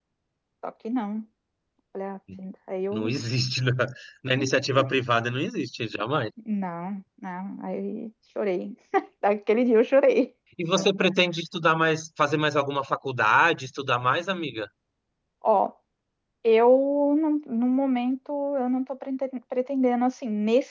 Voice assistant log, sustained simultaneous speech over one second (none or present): none